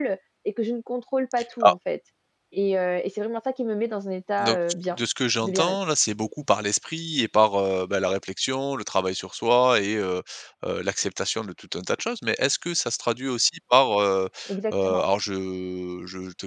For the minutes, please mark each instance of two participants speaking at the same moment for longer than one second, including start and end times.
none

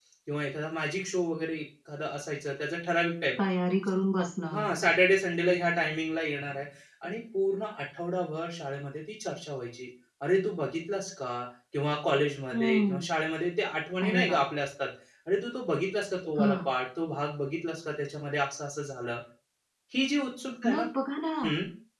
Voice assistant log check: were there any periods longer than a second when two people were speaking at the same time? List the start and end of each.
none

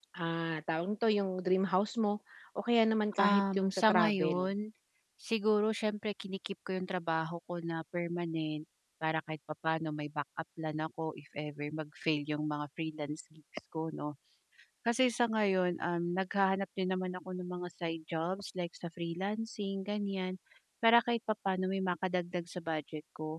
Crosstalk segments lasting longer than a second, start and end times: 3.2-4.4

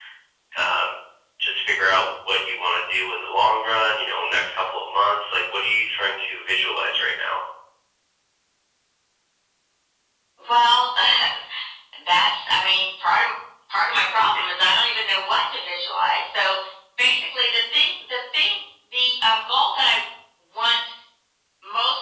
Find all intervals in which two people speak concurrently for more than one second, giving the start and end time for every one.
none

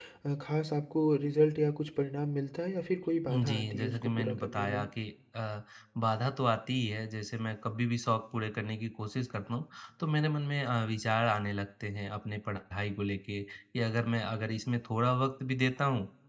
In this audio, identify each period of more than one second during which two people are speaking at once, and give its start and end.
3.3-4.8

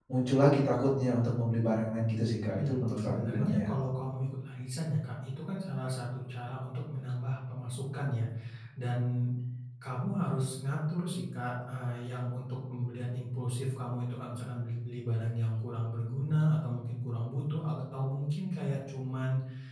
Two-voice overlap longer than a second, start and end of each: 2.5-3.7

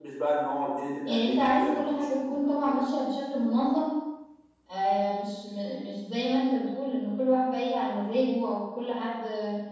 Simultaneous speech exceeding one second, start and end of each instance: 1.1-2.5

